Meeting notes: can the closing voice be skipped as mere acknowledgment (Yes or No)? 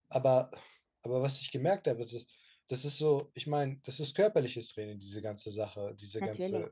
Yes